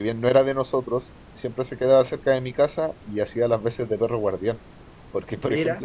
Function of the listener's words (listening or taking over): listening